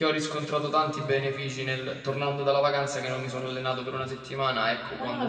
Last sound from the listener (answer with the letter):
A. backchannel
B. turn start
B